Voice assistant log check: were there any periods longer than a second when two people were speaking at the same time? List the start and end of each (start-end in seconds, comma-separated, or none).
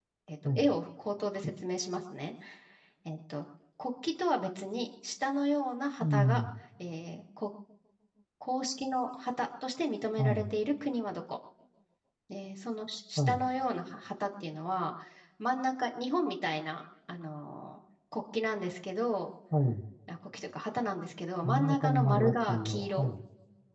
21.4-23.1